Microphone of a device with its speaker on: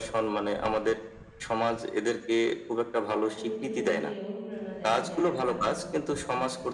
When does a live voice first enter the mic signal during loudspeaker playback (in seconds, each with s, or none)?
3.3 s